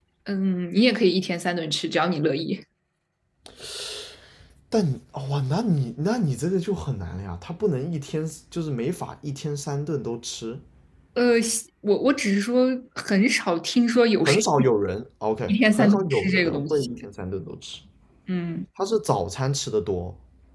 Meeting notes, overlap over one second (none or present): present